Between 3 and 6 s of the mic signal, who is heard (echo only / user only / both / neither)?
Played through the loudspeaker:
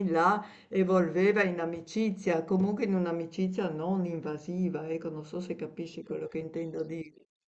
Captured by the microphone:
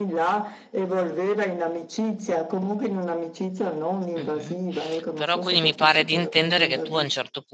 both